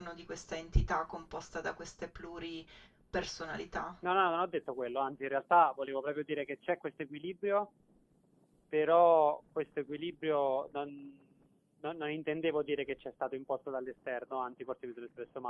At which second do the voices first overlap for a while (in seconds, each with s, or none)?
none